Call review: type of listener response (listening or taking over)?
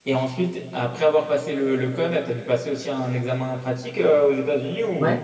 taking over